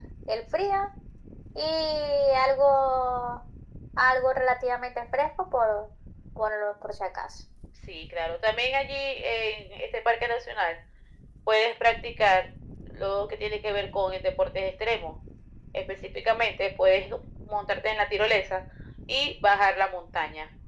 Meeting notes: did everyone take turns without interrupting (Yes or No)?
Yes